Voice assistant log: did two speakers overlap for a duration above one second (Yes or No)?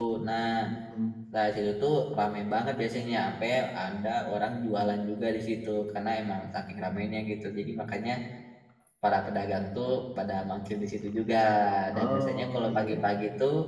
Yes